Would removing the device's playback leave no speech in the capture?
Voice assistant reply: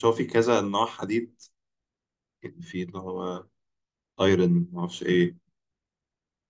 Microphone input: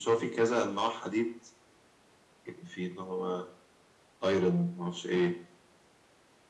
Yes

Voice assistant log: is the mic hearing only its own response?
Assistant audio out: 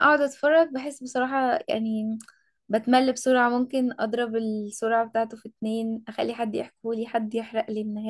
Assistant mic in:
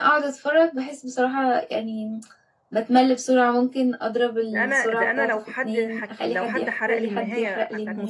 No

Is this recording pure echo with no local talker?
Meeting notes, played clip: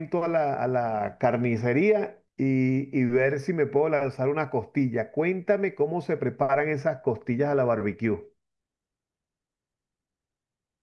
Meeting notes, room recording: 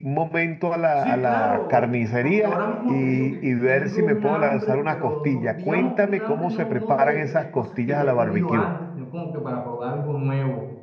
No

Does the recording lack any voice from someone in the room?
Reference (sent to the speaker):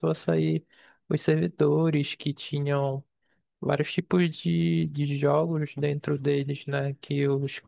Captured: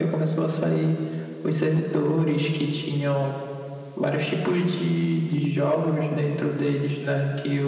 Yes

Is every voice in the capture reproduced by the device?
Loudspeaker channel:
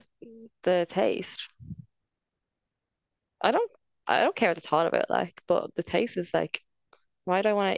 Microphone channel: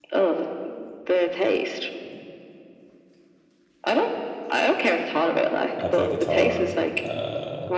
No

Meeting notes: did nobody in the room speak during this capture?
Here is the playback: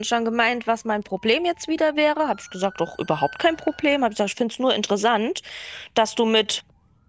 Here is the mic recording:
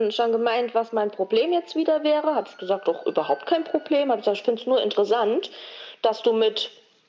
Yes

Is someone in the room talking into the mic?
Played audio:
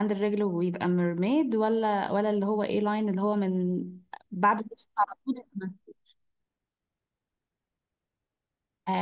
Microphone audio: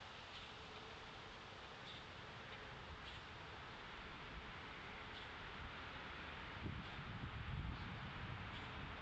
No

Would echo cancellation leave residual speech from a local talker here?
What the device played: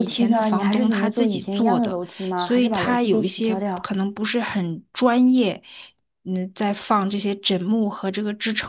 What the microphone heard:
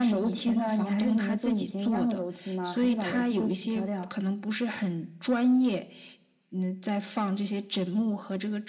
No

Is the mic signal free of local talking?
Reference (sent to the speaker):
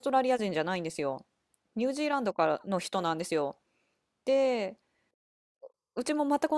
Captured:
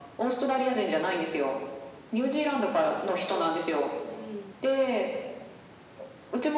No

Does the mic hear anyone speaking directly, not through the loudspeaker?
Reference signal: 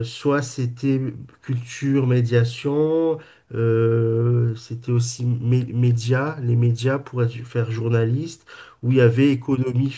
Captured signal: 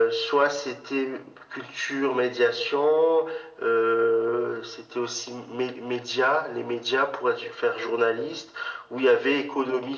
No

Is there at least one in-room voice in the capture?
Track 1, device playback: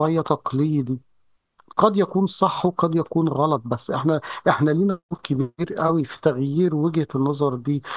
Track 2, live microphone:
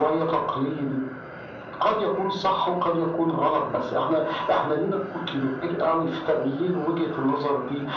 No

